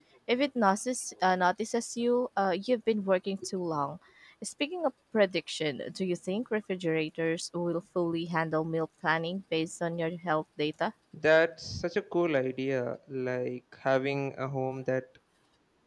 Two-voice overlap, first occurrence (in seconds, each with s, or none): none